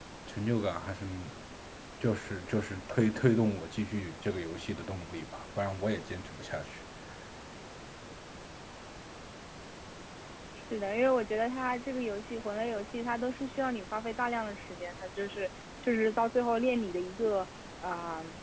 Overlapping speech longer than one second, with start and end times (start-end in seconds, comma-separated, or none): none